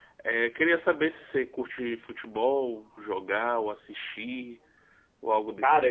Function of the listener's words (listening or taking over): taking over